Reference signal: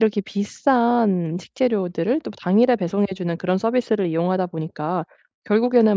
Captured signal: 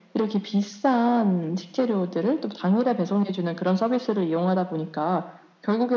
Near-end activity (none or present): none